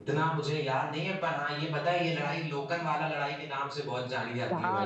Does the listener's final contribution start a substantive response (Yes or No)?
Yes